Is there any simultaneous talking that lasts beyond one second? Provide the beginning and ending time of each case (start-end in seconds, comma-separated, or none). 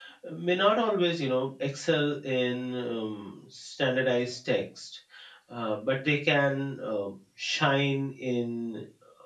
none